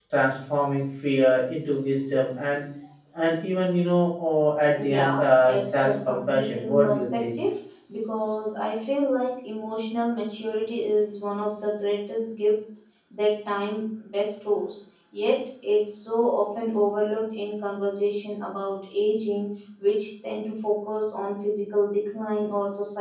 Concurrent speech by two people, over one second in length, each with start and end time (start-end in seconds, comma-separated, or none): 4.9-7.3